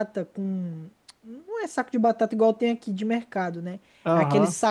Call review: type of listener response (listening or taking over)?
listening